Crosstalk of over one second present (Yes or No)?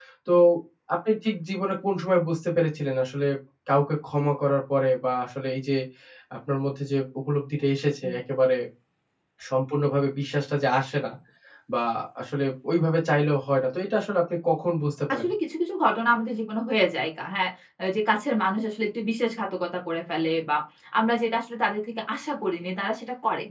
No